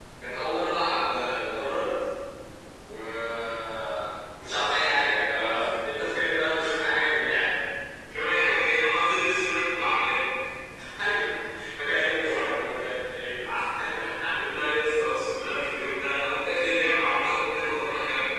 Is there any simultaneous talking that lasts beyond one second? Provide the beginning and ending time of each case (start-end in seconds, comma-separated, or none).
none